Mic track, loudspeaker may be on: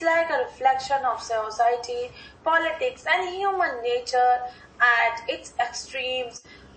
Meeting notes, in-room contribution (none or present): none